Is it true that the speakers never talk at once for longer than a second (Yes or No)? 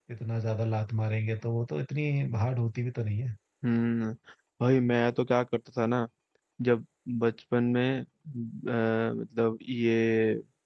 Yes